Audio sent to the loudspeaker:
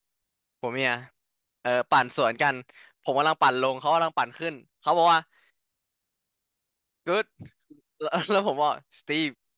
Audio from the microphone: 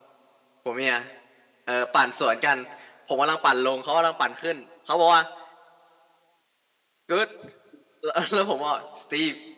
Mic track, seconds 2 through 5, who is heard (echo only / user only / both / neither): echo only